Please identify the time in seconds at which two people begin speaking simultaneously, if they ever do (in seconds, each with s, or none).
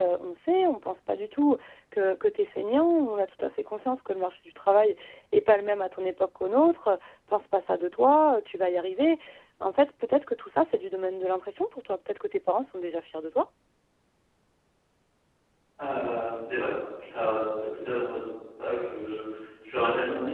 none